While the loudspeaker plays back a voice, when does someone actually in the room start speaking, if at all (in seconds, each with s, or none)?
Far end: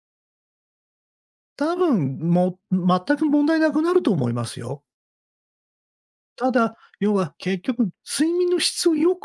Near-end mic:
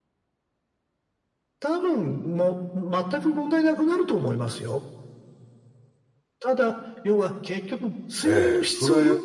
8.2 s